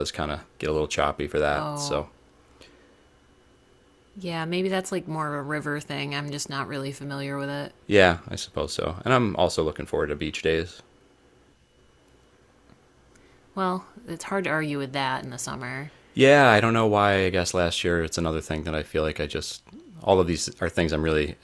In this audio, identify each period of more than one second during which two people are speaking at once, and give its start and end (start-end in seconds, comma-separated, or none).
none